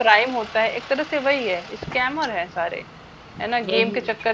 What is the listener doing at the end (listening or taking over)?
listening